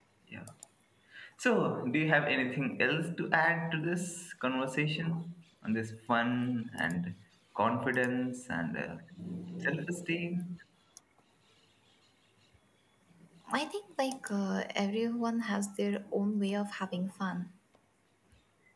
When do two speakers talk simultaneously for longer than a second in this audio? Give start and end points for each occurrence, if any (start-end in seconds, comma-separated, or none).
none